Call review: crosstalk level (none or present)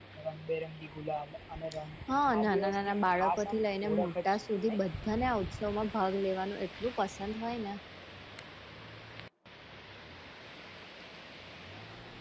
present